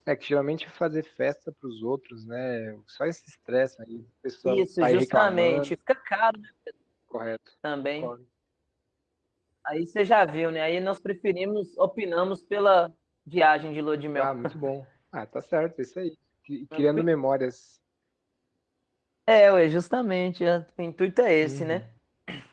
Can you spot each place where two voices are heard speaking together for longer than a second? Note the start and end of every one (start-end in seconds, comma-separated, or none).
4.4-5.7